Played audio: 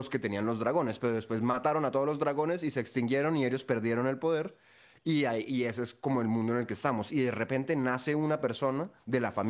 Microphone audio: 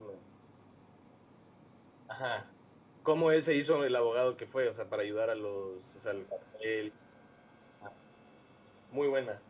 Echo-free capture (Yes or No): Yes